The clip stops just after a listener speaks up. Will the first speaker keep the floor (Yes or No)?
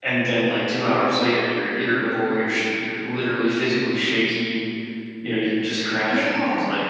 Yes